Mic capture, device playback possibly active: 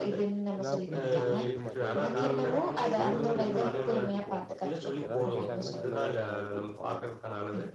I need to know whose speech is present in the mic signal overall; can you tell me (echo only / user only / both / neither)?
both